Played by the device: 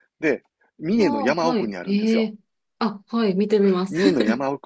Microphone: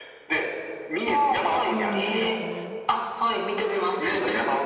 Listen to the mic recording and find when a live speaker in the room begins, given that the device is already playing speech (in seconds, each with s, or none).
1.7 s